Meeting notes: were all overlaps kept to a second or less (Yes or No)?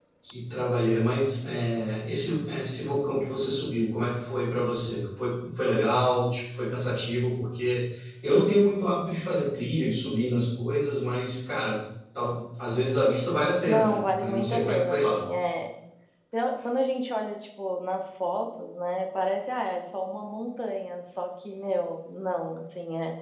No